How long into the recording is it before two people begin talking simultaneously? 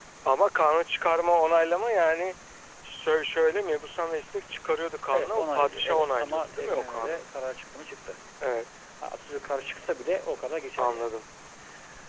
5.1 s

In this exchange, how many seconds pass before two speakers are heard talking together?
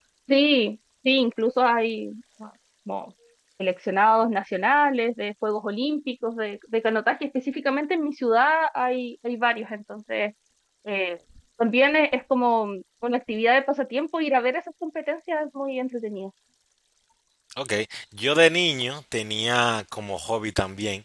none

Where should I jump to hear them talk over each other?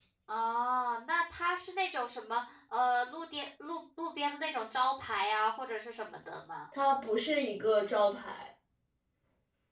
none

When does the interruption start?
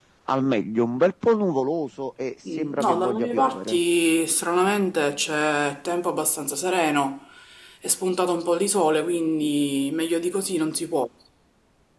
2.4 s

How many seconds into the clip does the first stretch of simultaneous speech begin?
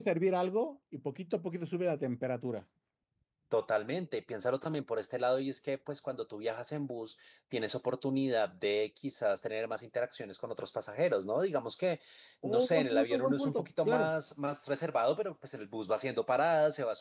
12.4 s

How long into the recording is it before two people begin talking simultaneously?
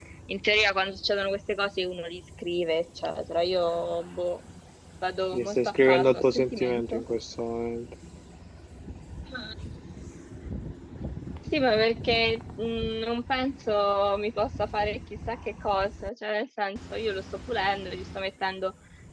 5.3 s

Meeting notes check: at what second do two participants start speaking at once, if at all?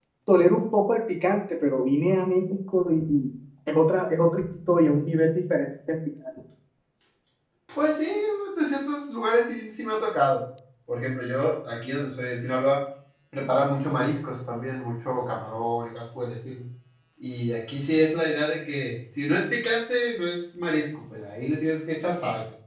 none

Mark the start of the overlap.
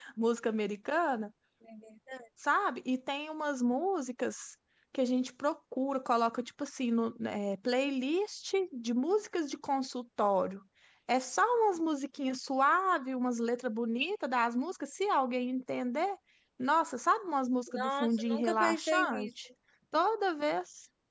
17.7 s

